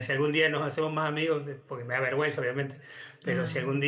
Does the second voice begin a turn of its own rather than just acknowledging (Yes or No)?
No